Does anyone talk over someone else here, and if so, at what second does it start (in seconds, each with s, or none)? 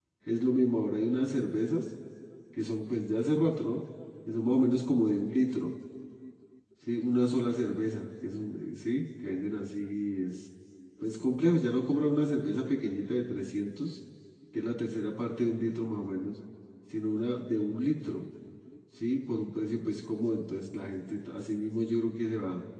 none